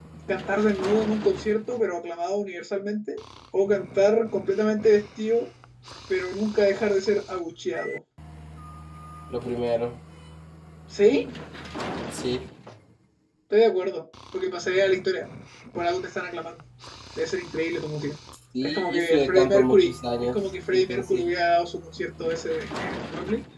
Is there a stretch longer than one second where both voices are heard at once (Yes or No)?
Yes